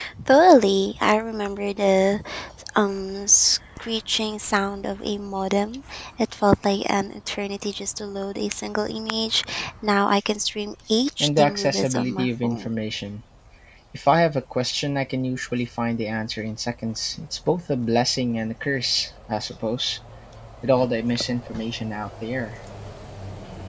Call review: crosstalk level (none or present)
present